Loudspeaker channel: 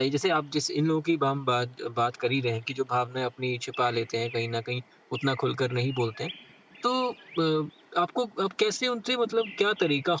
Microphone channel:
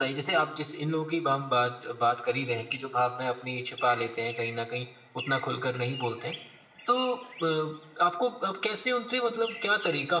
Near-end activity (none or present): none